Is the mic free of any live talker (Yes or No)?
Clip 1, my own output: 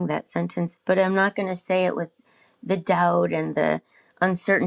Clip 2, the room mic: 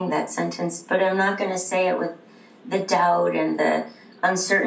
Yes